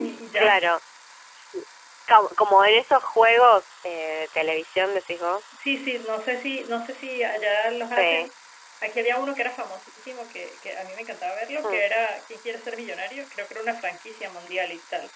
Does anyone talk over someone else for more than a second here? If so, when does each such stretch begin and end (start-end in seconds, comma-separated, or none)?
none